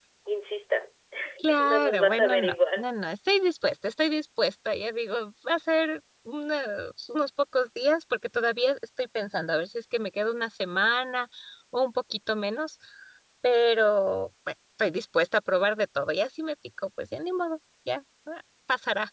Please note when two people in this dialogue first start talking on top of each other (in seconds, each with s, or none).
1.6 s